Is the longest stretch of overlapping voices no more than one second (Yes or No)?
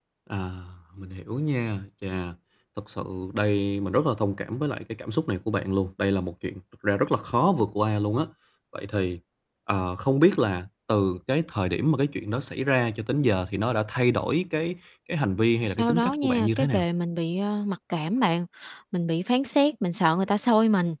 No